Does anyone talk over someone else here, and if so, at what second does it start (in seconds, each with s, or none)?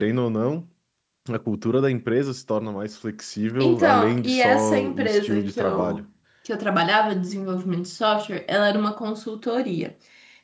3.6 s